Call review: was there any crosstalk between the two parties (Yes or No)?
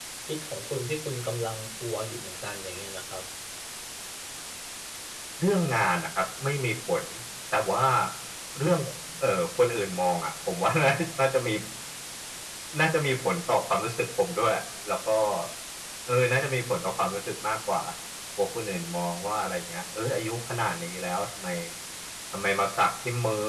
No